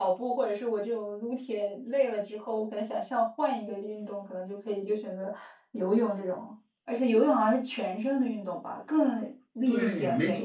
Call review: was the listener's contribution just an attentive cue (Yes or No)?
No